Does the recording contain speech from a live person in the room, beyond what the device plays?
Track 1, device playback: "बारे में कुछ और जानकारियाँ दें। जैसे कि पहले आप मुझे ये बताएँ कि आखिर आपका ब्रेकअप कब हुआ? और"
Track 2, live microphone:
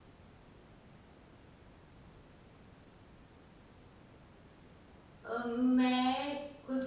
Yes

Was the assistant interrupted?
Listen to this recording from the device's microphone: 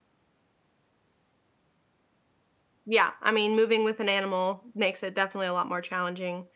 Yes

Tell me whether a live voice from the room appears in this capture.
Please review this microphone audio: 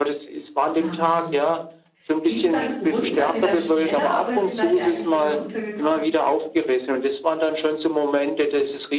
Yes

